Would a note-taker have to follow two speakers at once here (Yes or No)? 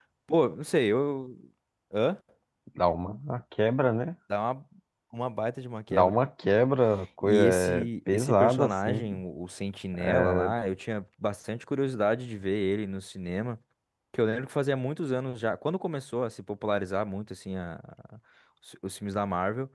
Yes